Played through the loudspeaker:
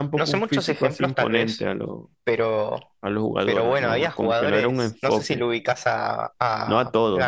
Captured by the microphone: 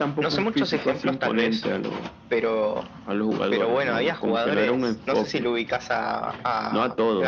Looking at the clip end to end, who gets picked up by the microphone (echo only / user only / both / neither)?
echo only